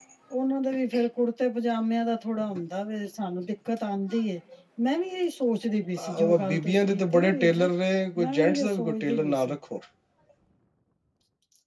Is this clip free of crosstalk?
No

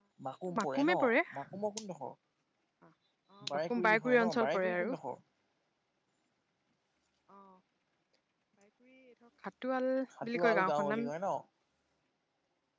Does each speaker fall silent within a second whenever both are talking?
No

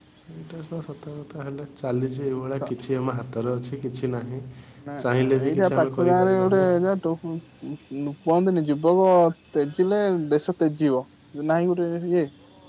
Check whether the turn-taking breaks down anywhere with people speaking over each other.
Yes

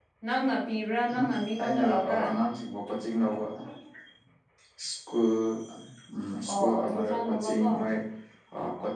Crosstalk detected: Yes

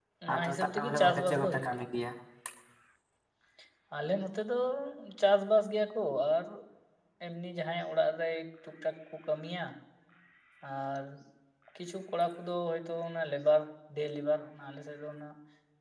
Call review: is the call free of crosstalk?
No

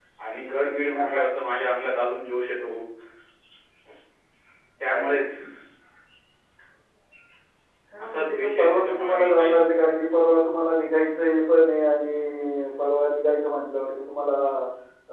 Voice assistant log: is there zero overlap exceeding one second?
No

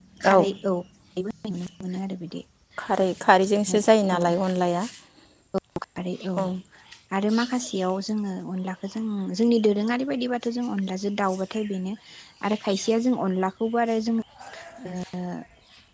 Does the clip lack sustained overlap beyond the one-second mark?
Yes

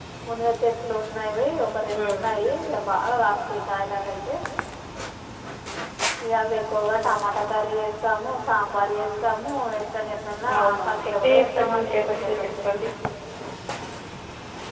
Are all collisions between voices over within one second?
No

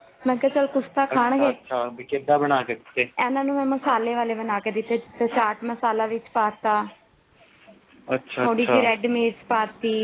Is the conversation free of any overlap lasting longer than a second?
Yes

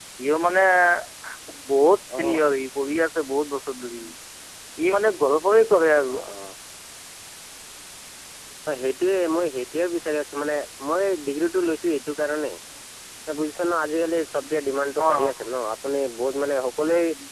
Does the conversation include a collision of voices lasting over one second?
No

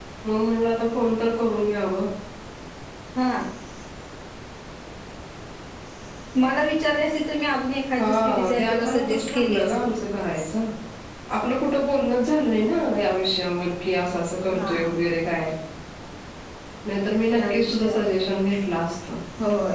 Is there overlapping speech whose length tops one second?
Yes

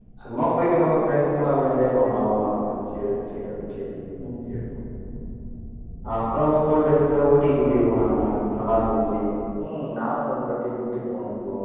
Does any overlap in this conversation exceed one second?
No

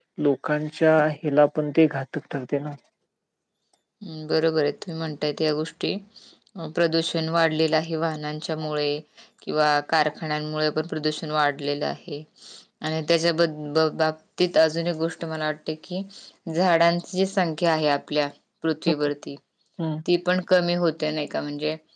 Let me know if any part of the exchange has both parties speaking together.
No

